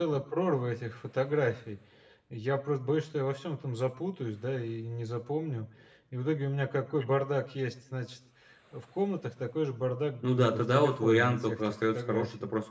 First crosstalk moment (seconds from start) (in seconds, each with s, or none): 10.2 s